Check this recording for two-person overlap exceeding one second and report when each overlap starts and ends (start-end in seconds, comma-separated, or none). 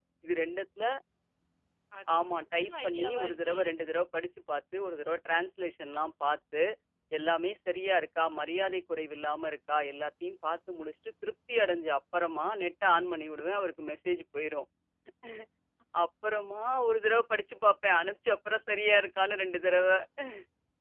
2.1-3.6